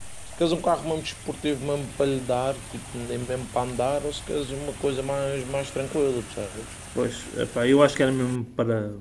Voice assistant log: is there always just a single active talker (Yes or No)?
Yes